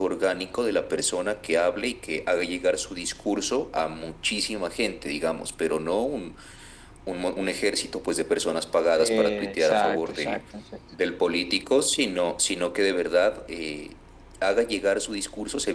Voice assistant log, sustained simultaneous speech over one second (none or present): present